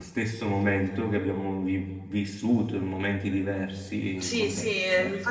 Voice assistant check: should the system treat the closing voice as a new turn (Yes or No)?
Yes